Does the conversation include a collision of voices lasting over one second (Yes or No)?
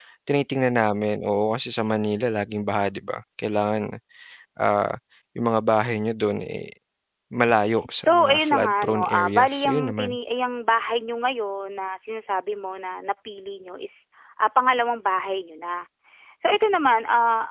Yes